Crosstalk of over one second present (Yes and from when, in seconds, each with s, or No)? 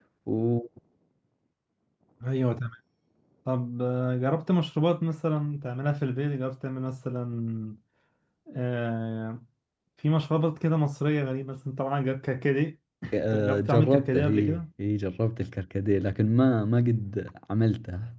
Yes, from 13.1 s